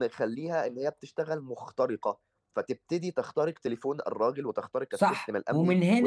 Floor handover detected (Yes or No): Yes